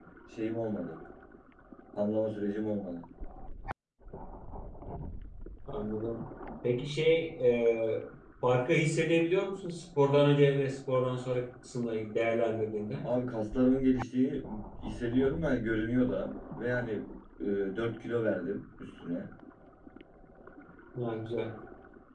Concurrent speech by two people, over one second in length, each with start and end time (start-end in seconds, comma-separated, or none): none